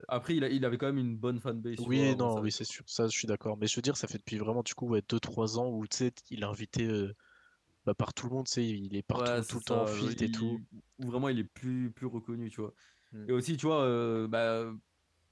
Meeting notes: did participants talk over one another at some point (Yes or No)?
Yes